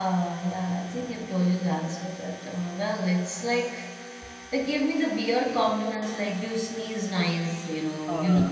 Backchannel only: Yes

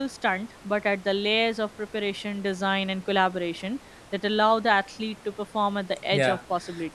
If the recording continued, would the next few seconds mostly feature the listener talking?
Yes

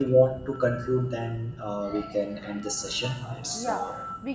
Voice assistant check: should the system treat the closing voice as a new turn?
Yes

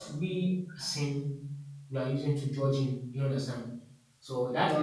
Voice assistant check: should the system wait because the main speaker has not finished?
Yes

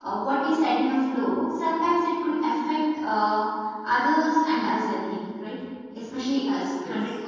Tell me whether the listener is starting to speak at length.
No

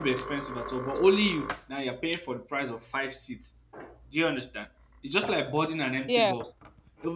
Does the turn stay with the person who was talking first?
Yes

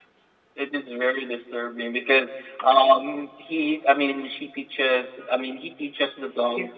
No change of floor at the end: Yes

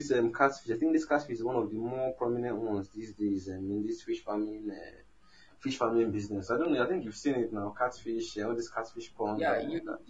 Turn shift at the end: Yes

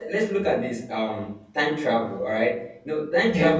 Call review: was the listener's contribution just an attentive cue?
Yes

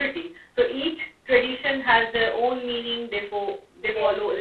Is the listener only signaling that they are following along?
Yes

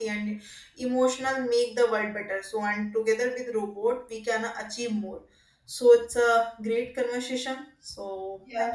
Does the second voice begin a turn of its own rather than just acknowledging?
Yes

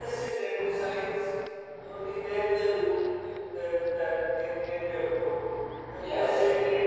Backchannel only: Yes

